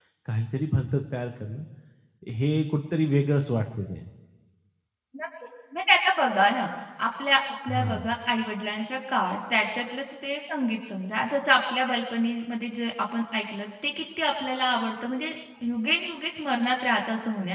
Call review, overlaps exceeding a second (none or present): none